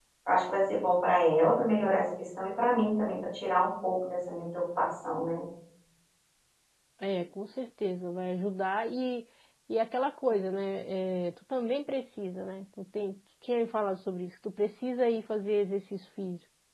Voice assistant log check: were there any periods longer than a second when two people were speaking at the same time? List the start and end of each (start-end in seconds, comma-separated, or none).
none